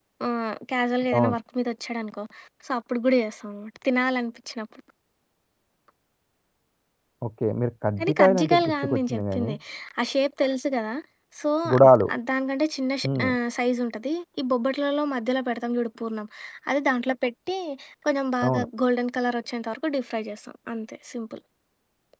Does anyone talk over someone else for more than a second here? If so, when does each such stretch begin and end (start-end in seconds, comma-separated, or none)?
8.0-9.5